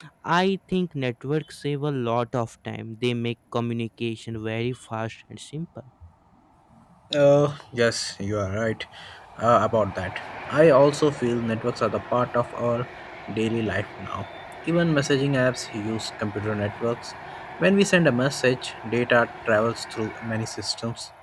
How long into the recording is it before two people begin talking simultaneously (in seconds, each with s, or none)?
none